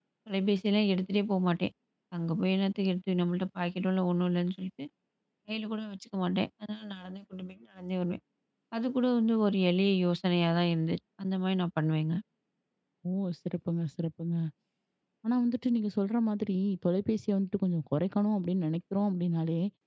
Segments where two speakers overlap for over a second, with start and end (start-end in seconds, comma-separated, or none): none